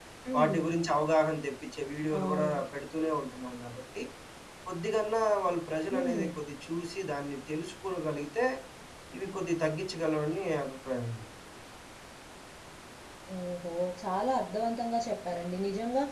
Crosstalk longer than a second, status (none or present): none